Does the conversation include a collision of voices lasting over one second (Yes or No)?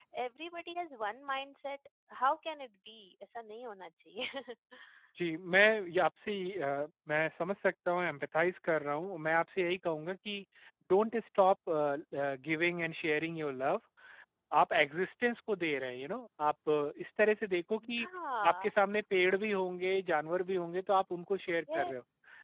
No